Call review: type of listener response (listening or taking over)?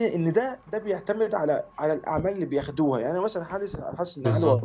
listening